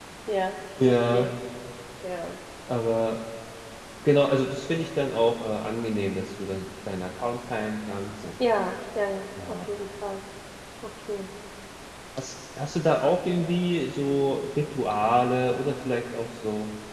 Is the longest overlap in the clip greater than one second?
No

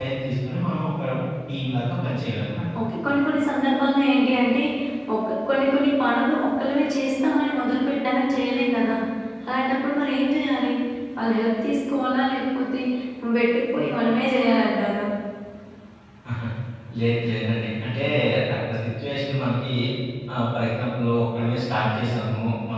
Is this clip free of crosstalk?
Yes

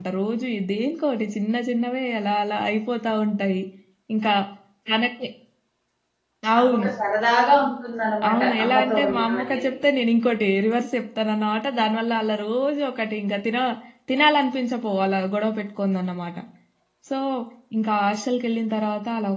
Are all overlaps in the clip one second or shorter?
No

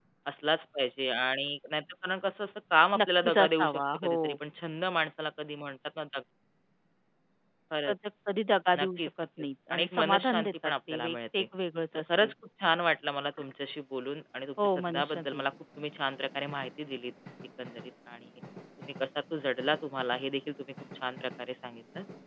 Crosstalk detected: Yes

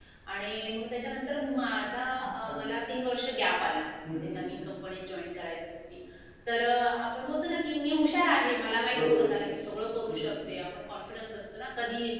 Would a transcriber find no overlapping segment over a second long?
Yes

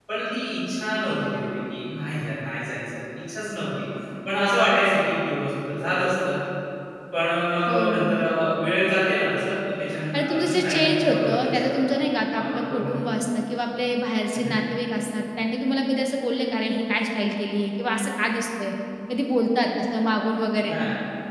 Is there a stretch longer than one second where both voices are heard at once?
Yes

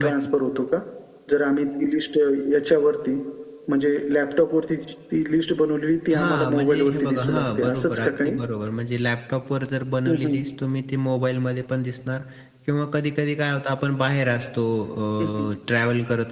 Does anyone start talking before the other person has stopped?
Yes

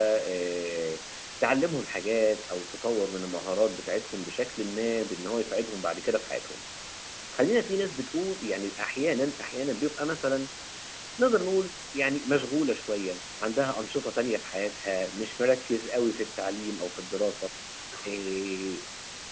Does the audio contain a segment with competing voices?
No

